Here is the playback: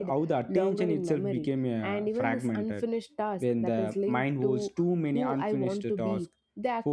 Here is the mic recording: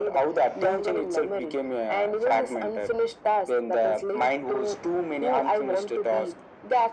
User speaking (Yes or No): No